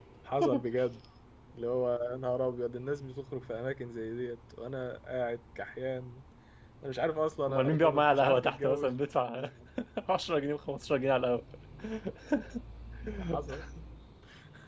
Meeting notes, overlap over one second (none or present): present